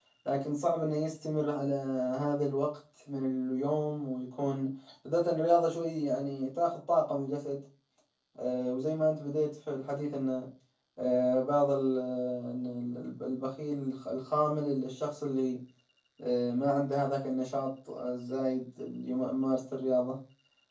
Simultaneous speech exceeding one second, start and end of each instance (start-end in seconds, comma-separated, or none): none